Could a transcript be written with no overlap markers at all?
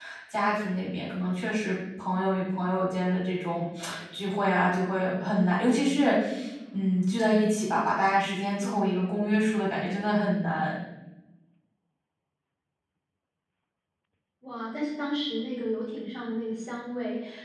Yes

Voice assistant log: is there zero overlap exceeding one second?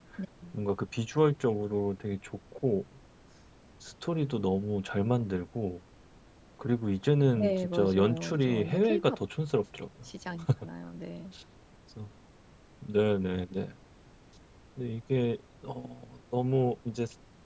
No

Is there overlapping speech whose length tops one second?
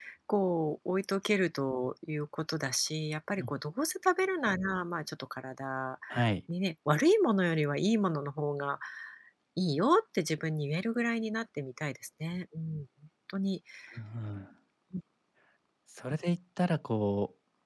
No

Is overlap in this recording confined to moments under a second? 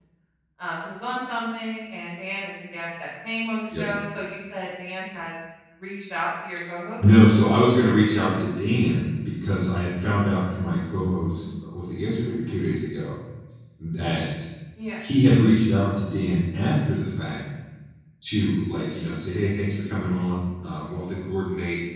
Yes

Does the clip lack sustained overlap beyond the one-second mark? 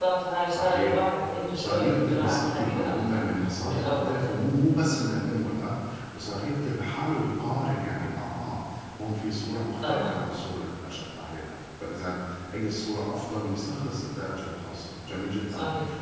No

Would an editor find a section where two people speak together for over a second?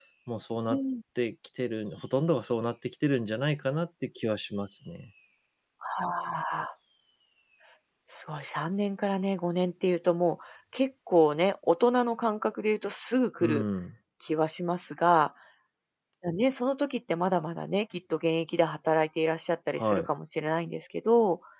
No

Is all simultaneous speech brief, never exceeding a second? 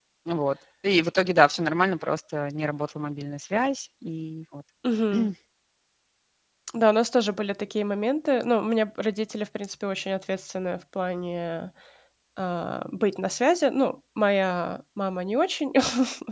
Yes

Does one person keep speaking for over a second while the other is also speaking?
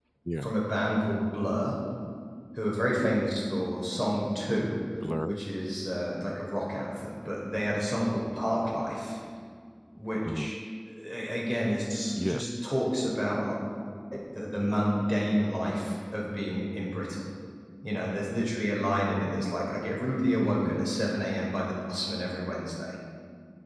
No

